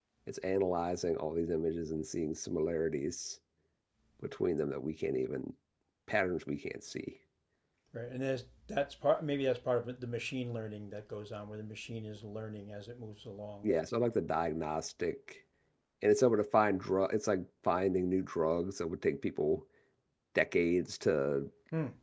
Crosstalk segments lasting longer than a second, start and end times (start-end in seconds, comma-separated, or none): none